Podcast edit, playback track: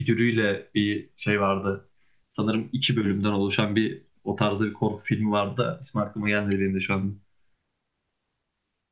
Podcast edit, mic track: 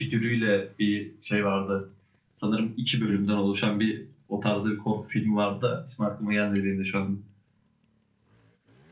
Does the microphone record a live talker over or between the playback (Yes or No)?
No